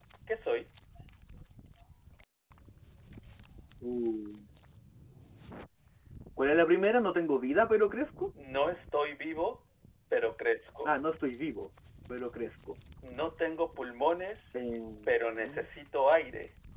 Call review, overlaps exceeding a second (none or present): none